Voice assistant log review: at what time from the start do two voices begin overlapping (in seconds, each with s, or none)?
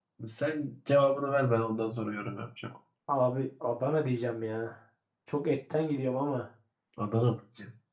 none